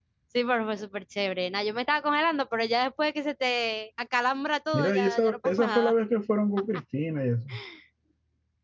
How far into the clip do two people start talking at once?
4.7 s

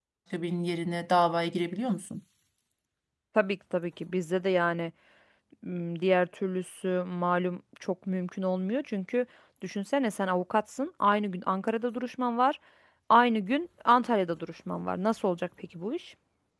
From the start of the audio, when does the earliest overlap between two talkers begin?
none

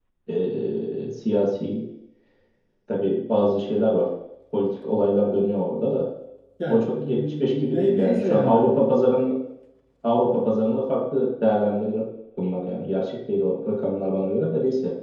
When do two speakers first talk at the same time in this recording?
6.7 s

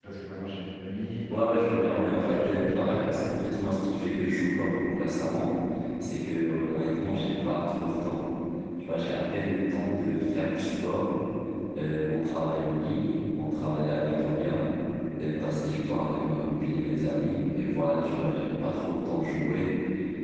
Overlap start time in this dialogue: 1.6 s

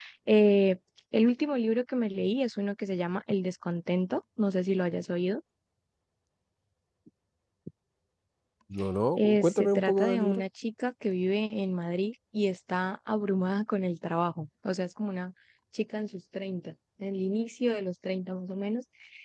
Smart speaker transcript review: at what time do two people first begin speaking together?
9.2 s

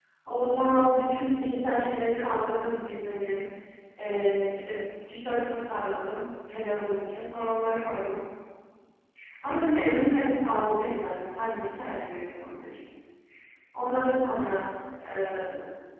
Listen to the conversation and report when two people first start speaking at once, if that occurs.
none

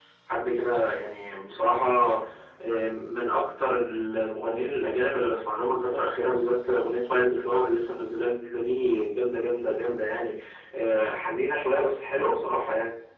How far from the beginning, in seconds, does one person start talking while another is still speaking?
none

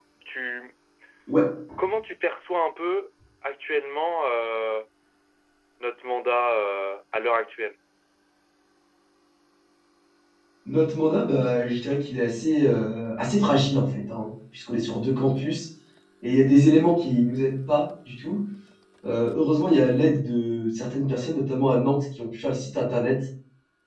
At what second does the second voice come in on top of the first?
none

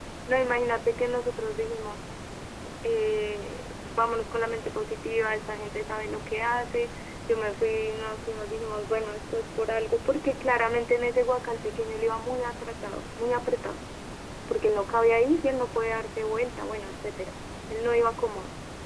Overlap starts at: none

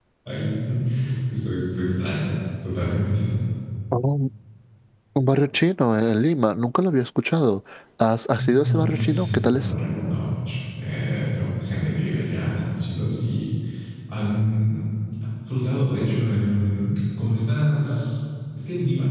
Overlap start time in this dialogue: 8.4 s

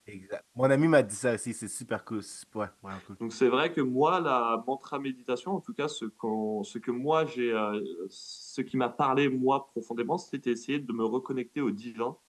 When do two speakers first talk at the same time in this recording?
none

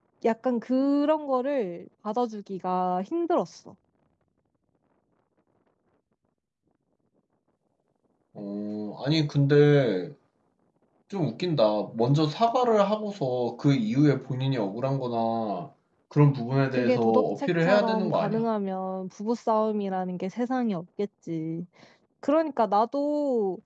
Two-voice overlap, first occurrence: 16.7 s

